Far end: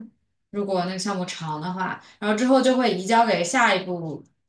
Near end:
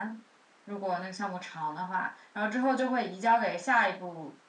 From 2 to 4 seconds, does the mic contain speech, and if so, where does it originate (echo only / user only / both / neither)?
echo only